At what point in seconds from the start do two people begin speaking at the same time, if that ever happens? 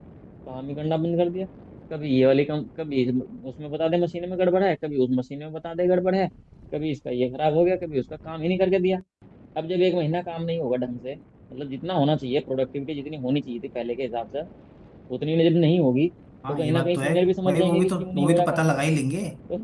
16.5 s

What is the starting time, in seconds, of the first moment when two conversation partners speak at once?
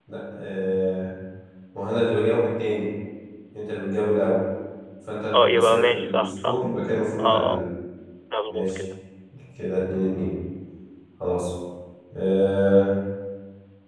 5.3 s

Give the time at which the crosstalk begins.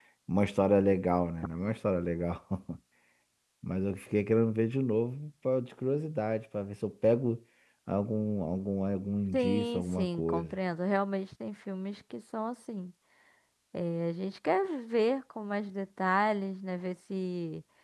9.3 s

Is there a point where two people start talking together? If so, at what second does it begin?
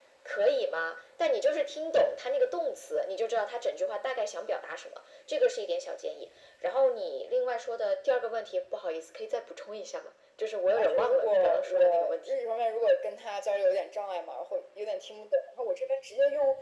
10.8 s

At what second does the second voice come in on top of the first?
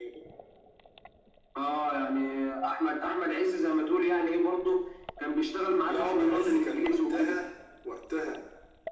5.9 s

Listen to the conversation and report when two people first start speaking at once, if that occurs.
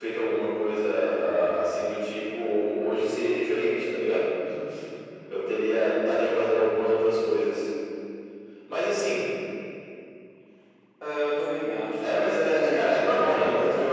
12.0 s

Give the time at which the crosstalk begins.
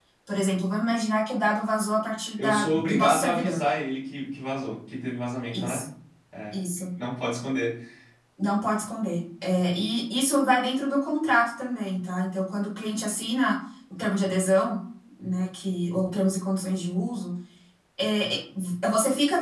2.4 s

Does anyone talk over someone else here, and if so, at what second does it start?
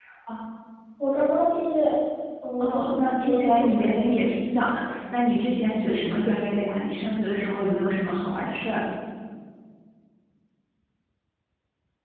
2.6 s

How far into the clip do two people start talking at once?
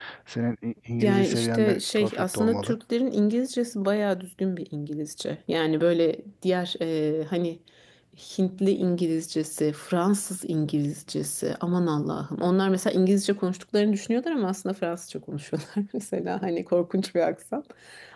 1.0 s

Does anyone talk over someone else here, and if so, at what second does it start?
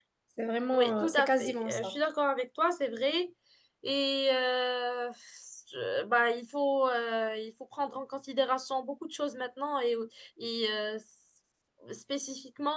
0.7 s

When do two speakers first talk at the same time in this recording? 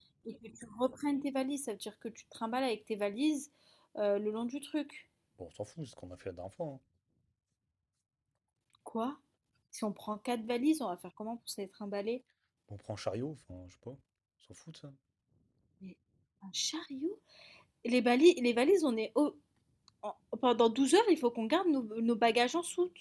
none

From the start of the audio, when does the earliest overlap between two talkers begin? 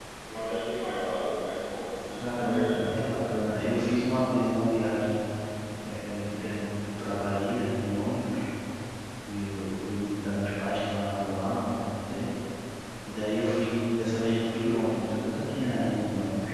2.2 s

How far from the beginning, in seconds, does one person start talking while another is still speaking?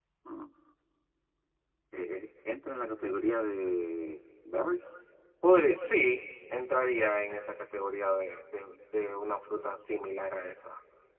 none

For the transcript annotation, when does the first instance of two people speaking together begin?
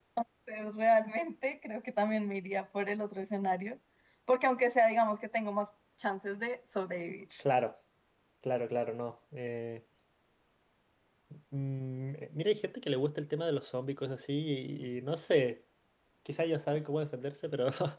none

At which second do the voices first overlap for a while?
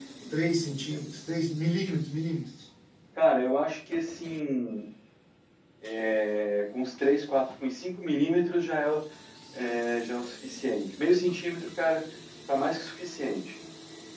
none

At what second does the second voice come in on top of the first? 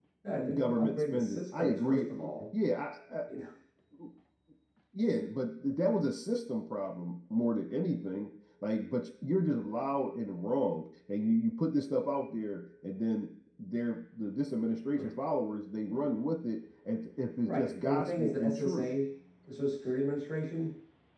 0.5 s

